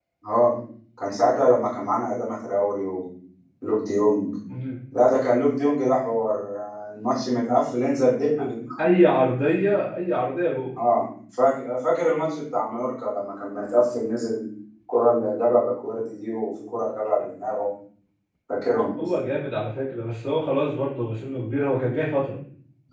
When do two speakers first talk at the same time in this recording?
none

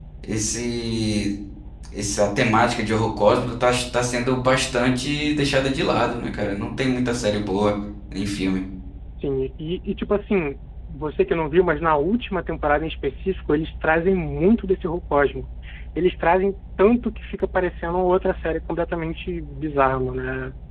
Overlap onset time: none

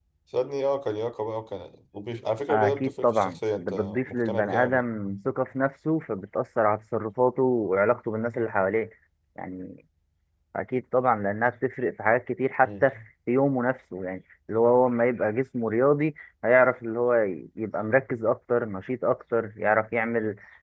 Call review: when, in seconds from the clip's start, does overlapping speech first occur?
2.5 s

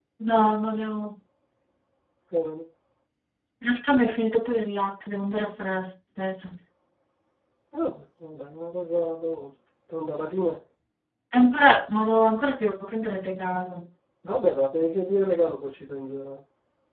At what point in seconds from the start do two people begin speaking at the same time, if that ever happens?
none

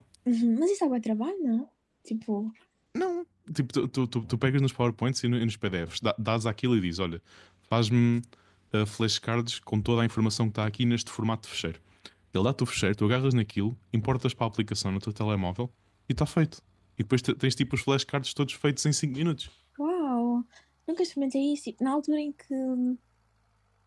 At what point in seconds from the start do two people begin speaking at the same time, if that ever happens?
none

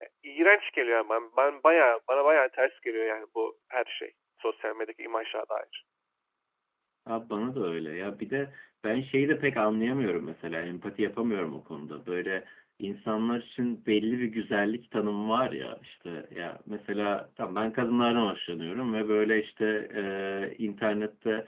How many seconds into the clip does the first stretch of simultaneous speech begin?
none

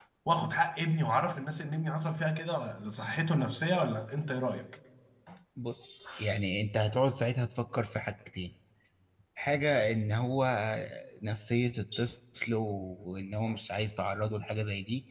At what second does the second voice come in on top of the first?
none

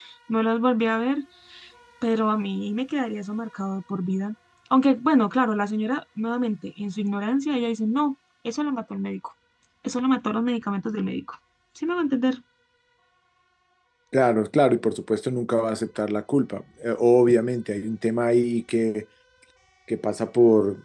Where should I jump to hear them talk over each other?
none

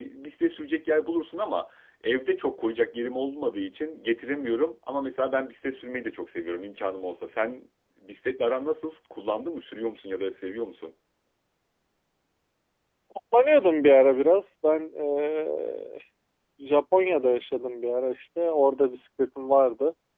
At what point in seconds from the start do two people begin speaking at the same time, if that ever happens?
none

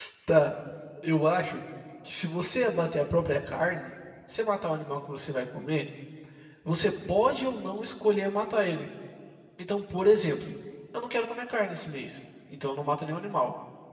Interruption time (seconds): none

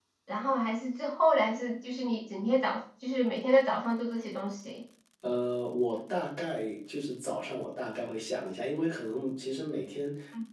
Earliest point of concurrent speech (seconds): none

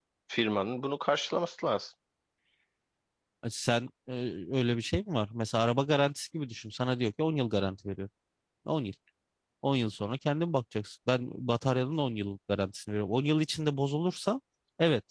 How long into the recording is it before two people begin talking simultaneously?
none

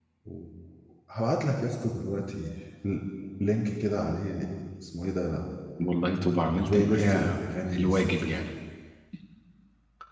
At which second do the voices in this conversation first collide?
6.6 s

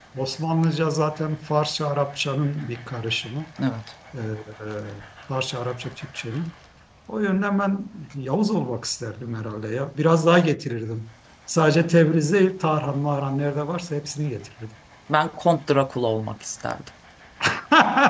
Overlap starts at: none

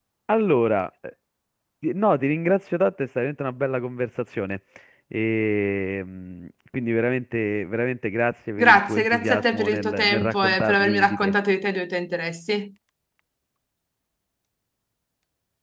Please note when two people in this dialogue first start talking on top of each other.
8.6 s

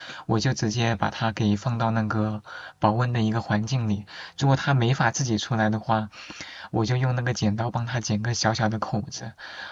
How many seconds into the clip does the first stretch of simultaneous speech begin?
none

